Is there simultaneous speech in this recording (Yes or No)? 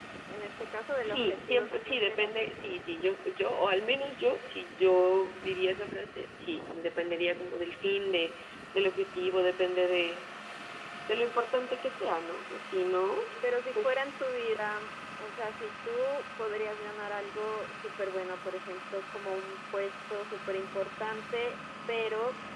Yes